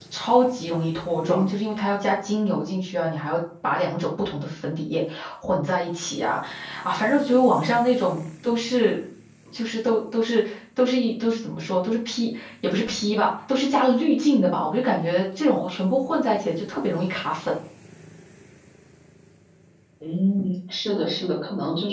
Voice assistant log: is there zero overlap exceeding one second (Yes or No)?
Yes